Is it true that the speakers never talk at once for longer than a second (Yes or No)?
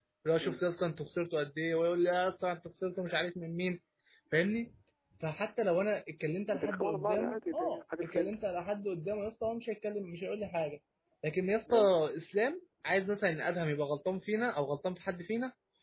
No